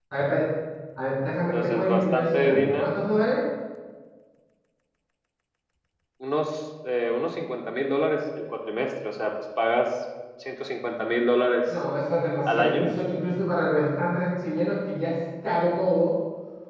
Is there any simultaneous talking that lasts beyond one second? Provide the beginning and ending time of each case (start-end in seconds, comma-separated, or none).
1.5-2.9